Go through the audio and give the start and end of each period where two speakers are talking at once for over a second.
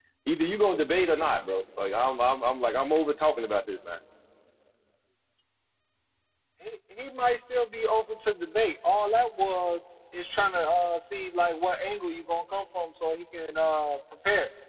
none

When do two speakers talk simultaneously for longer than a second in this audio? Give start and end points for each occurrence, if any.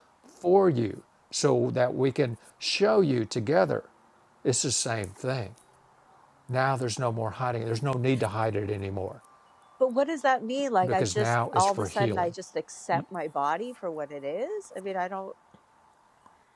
10.8-12.3

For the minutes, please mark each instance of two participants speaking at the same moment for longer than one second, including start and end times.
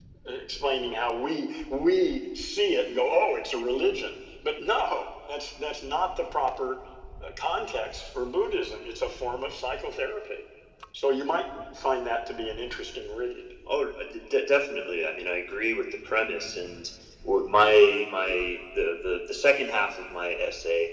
none

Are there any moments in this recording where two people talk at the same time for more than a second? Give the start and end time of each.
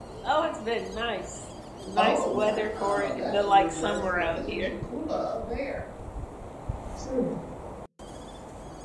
2.0-4.7

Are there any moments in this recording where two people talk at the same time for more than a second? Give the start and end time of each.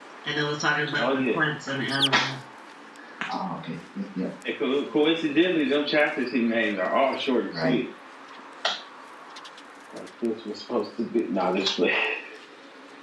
none

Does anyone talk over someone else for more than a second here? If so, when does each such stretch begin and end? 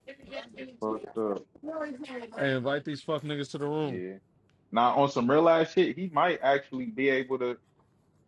none

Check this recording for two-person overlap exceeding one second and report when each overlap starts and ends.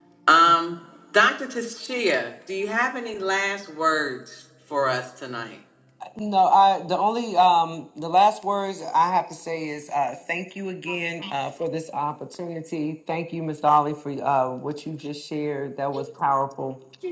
none

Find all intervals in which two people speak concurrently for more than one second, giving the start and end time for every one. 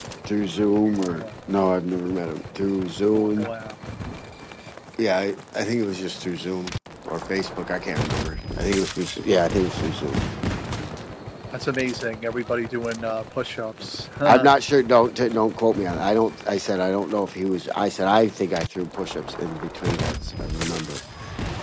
none

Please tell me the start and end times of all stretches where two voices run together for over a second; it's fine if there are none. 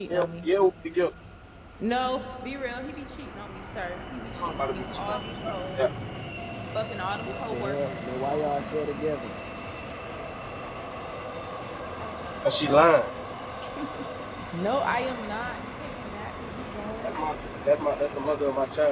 4.4-5.8, 7.2-8.7

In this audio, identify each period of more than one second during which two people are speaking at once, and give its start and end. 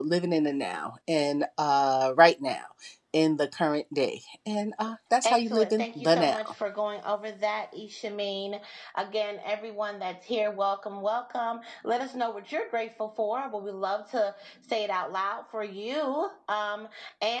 5.2-6.5

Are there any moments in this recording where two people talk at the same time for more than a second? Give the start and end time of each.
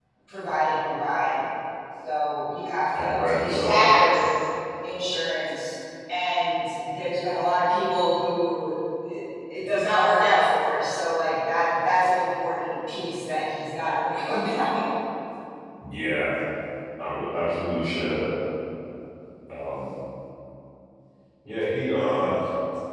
3.0-4.2

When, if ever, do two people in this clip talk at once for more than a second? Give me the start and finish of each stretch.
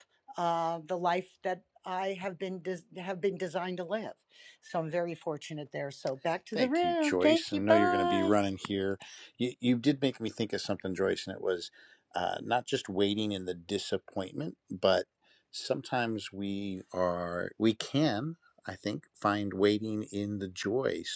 6.5-8.3

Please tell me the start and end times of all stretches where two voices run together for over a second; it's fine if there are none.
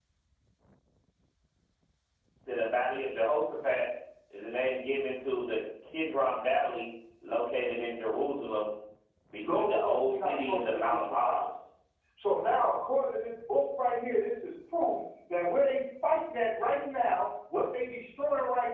9.4-11.5

